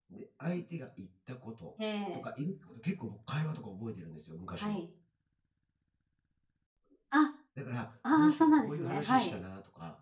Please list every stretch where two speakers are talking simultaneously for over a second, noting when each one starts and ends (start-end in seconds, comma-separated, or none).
8.1-9.3